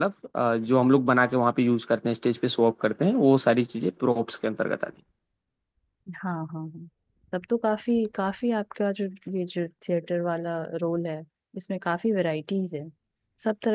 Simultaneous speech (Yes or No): No